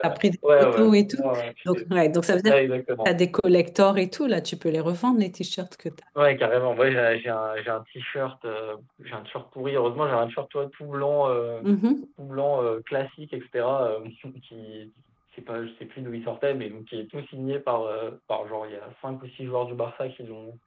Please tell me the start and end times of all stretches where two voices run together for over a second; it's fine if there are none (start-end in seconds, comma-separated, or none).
0.6-1.8